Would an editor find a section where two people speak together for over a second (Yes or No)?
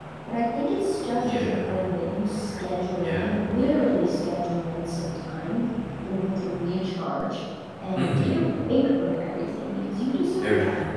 No